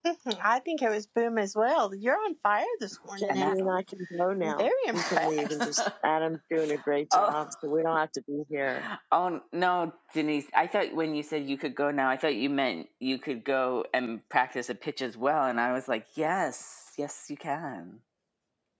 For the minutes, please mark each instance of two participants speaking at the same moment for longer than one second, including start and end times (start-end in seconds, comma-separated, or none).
4.4-5.8